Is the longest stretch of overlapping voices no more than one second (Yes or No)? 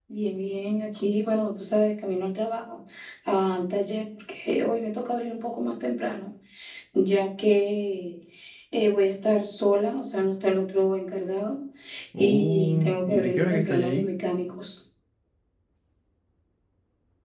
No